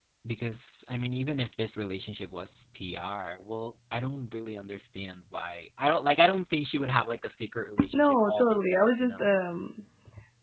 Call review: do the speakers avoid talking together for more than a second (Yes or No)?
No